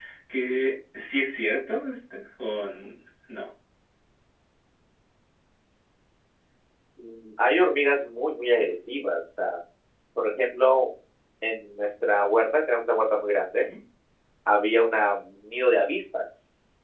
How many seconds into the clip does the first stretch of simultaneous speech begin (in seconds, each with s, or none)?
none